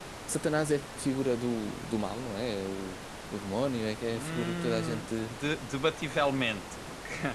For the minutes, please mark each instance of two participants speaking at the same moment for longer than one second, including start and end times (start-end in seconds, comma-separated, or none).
4.0-5.3